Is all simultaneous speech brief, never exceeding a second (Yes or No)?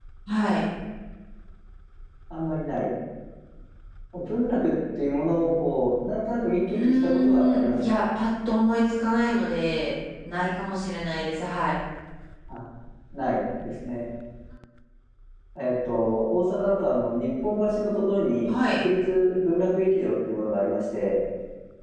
No